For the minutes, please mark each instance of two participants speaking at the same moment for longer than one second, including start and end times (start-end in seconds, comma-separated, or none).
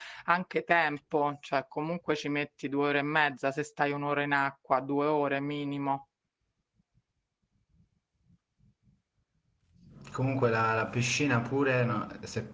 none